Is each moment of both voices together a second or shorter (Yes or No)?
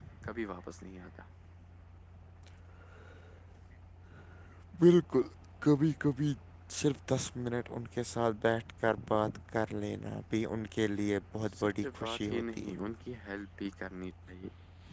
No